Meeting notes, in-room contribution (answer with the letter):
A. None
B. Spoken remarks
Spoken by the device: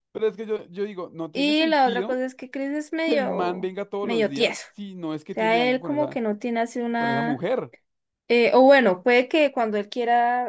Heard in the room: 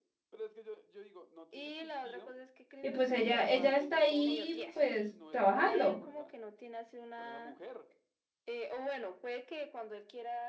B